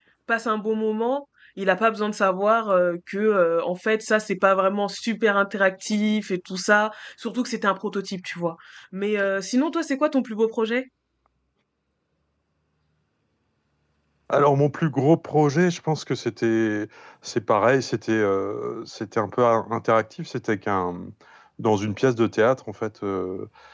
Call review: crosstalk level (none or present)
none